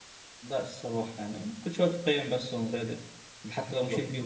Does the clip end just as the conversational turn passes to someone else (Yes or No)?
No